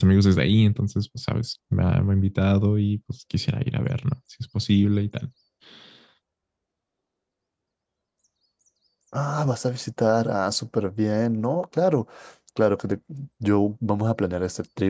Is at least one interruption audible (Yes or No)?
No